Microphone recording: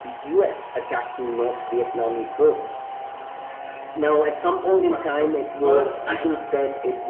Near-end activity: present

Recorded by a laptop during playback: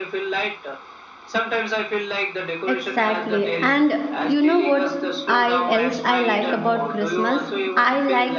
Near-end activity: present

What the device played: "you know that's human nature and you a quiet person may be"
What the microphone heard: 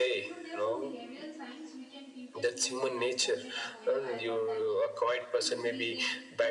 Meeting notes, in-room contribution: present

